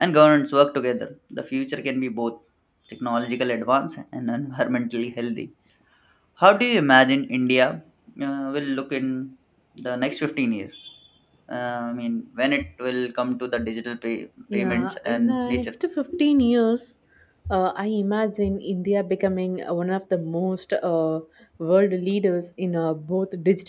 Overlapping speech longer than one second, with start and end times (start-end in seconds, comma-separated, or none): 14.5-15.7